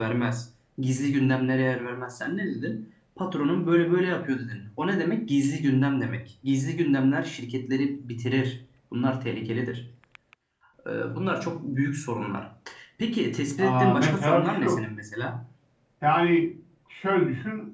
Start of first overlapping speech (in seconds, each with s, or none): 13.6 s